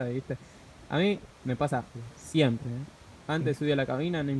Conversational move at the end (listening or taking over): listening